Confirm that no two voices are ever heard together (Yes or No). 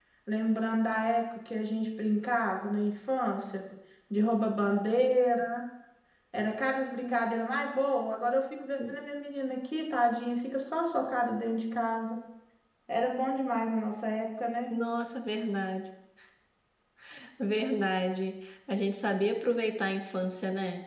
Yes